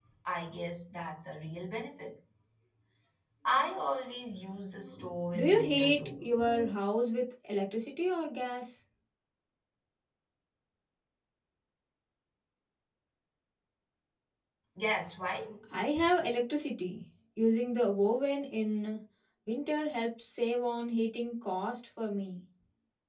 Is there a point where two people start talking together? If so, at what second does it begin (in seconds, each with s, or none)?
5.3 s